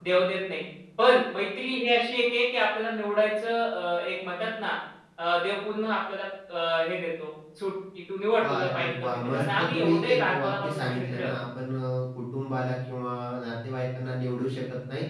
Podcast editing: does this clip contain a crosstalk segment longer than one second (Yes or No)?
Yes